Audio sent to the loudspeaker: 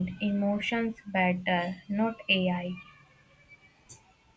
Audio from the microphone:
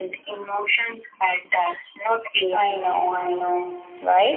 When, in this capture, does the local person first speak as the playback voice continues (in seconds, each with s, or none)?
2.5 s